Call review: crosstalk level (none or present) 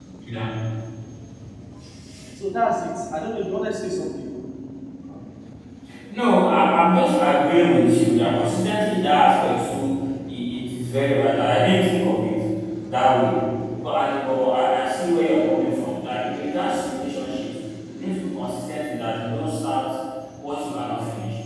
none